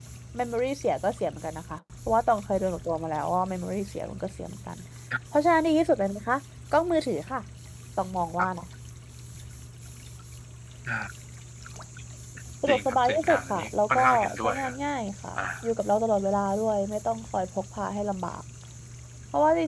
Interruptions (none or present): present